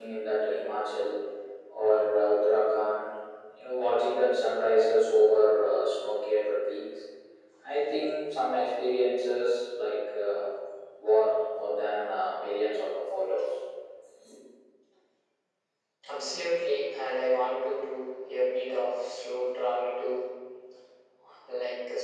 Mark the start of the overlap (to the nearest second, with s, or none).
none